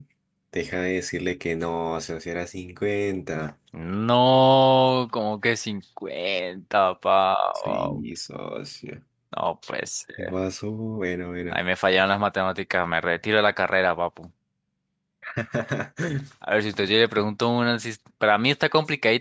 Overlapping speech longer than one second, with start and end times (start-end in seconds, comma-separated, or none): none